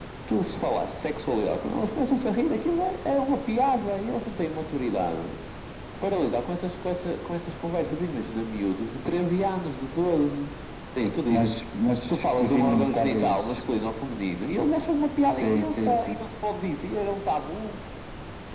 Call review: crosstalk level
present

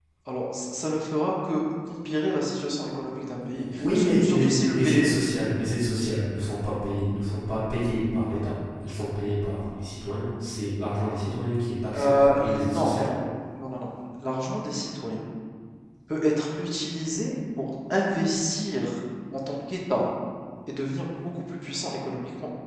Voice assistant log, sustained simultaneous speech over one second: present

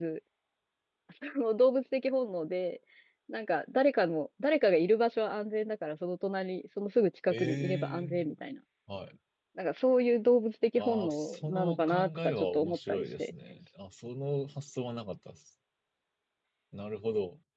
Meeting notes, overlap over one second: present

